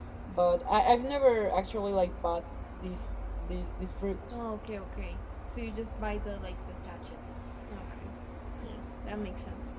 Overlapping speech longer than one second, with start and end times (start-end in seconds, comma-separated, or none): none